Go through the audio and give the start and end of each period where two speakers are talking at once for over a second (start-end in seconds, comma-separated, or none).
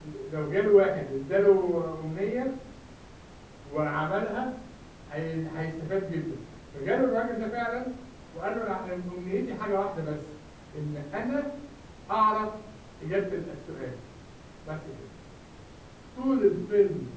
none